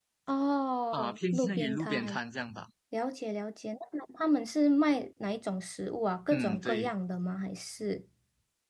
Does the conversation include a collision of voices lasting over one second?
Yes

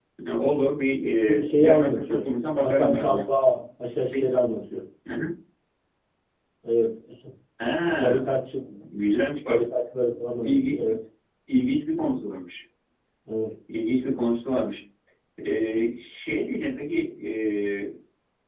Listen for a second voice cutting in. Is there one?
Yes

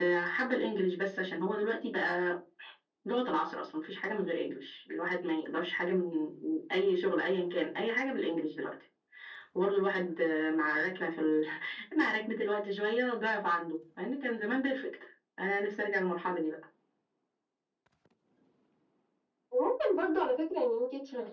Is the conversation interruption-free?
Yes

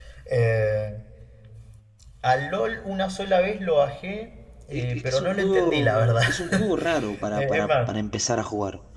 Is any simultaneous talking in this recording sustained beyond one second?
Yes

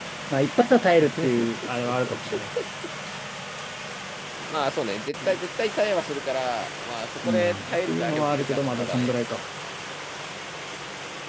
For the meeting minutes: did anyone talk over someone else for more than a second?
Yes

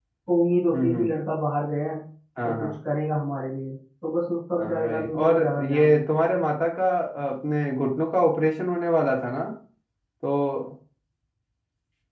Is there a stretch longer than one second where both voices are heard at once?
Yes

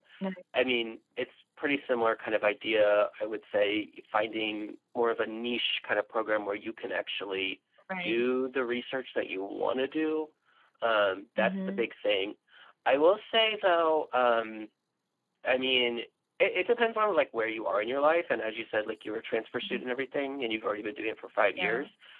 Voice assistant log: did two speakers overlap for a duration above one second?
No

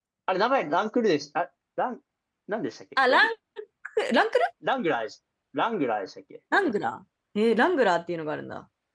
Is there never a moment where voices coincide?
Yes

